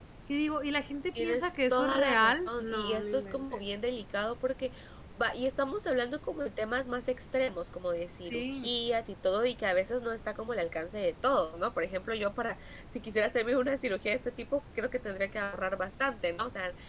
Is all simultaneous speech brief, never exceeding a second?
No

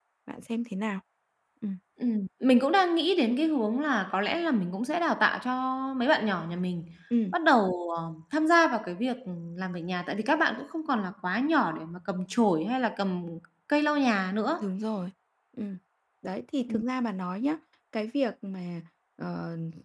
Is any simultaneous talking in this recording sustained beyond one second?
No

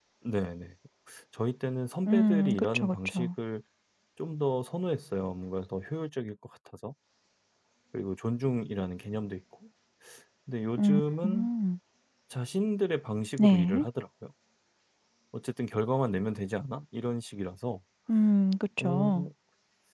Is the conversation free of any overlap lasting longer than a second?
No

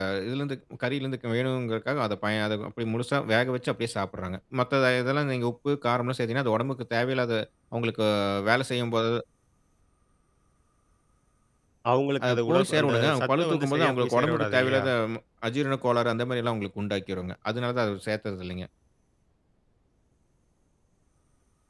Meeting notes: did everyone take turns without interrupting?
No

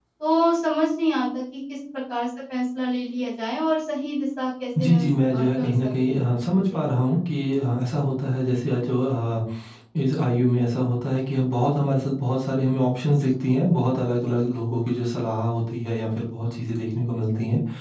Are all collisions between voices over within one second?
No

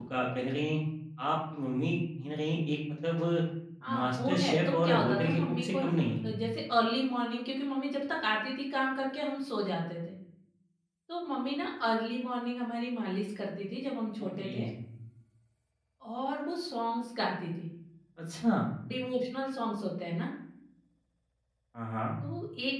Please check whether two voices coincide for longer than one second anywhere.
Yes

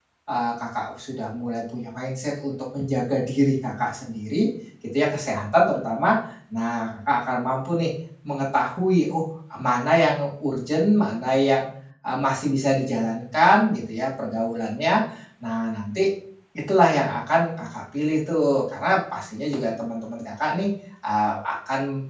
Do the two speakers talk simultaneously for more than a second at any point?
No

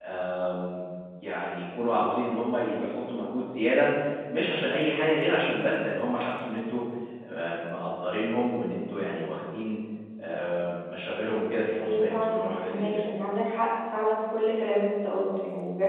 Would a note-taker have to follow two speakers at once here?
Yes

